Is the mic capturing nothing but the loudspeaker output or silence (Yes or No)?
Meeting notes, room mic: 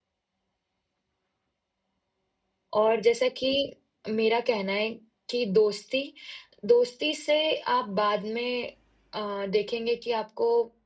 No